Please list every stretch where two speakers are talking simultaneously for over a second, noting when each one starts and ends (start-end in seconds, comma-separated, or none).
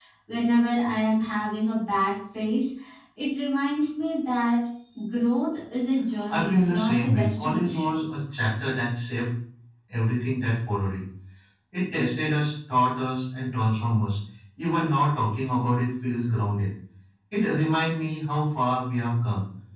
6.3-7.9